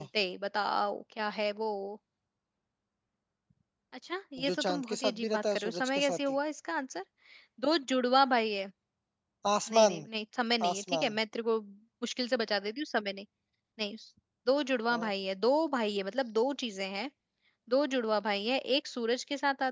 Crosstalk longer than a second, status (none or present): present